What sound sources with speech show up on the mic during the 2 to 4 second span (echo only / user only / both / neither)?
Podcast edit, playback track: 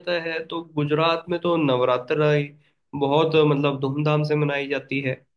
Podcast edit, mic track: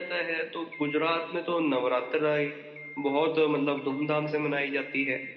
echo only